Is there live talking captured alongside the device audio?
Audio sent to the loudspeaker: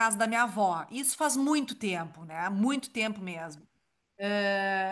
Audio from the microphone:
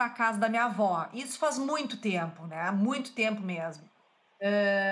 No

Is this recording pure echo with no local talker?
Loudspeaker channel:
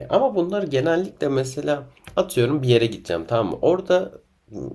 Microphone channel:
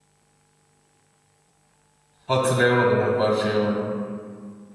No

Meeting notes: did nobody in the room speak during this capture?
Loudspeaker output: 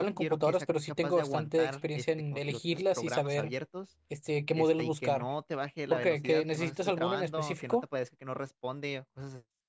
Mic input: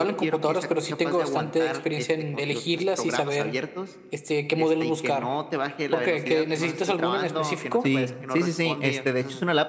No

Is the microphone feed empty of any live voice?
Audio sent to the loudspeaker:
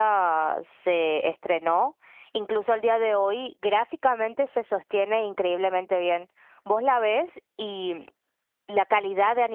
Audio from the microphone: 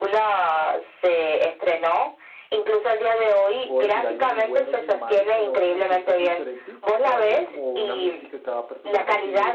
No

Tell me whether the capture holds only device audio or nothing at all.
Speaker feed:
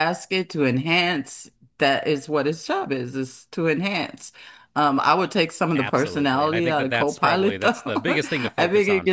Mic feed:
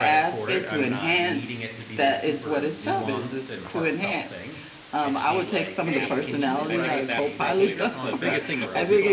No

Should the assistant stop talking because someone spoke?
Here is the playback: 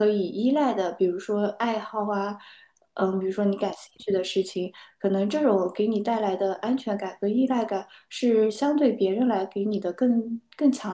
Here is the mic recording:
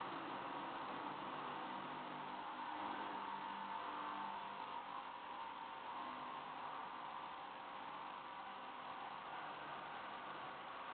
No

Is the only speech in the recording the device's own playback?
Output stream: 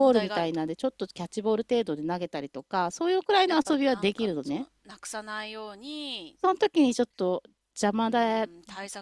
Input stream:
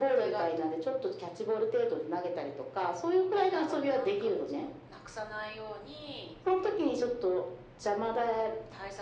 Yes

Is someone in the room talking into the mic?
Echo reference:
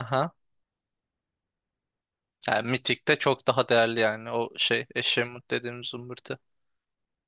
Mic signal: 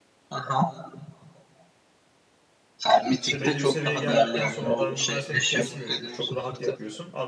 Yes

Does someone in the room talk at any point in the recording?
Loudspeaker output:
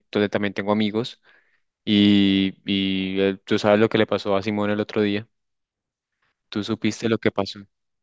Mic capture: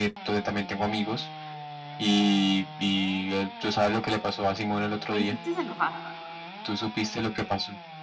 Yes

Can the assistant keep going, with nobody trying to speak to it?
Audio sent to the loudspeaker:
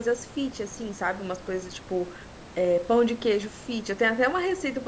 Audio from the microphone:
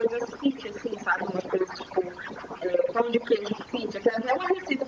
Yes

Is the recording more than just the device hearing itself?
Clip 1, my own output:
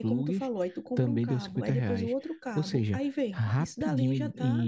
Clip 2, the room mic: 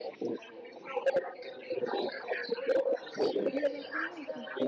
Yes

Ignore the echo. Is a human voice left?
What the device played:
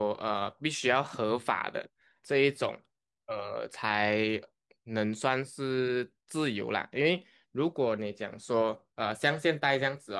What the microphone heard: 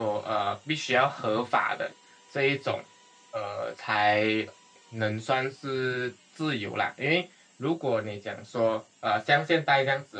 No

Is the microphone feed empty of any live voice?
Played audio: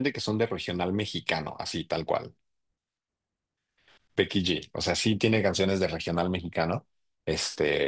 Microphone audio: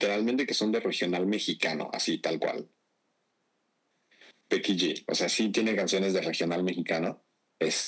Yes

